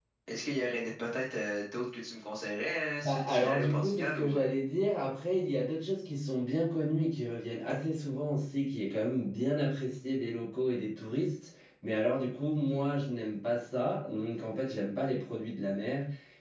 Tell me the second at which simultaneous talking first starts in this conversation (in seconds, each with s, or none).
3.0 s